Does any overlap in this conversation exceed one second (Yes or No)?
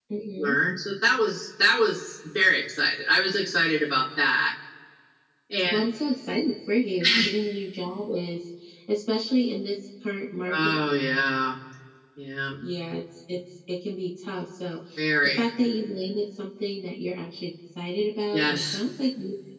No